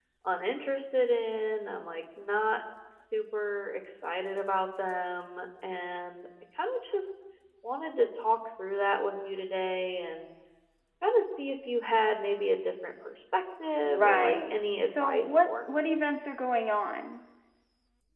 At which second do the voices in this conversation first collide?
13.8 s

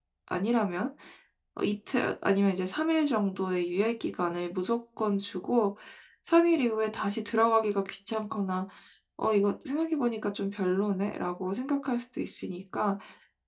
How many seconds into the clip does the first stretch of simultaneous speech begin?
none

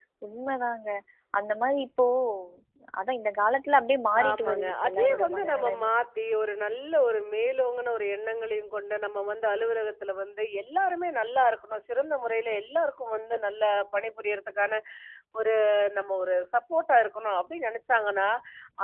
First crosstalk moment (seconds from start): 4.1 s

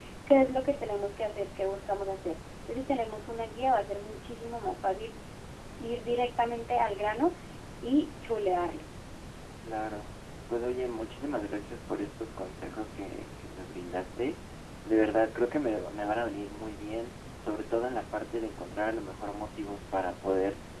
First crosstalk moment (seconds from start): none

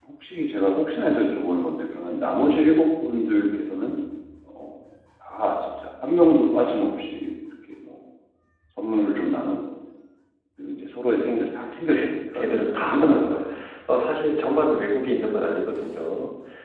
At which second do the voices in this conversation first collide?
11.9 s

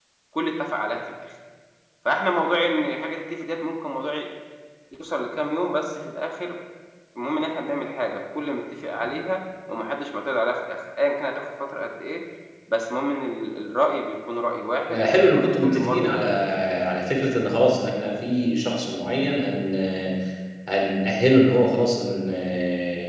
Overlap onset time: 14.9 s

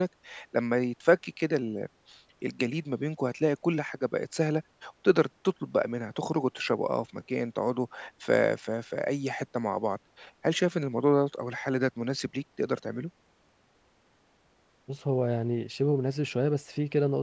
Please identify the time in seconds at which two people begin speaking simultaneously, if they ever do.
none

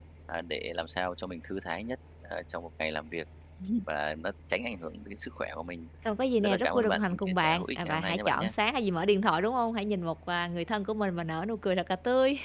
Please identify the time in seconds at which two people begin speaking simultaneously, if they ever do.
6.4 s

